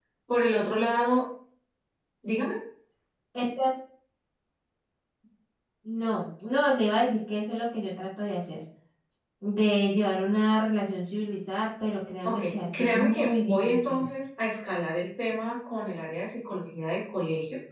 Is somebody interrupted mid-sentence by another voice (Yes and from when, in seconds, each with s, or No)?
Yes, from 12.2 s